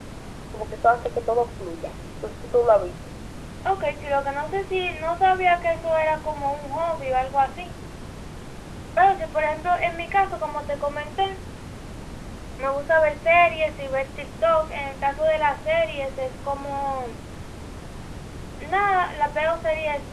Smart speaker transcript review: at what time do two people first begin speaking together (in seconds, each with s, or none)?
none